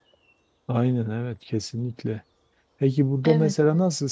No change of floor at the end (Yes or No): Yes